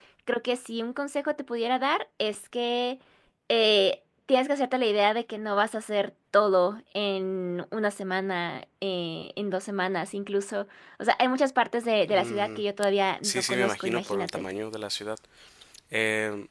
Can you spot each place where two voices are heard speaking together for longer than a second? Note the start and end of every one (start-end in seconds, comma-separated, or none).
13.2-14.4